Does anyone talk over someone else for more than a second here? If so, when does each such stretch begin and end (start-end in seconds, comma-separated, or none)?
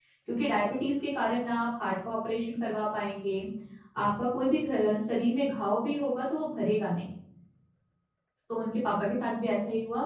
none